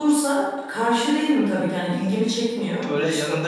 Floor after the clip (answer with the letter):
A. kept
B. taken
B